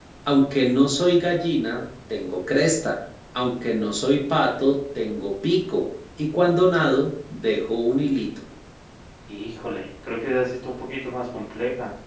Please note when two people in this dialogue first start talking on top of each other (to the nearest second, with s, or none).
none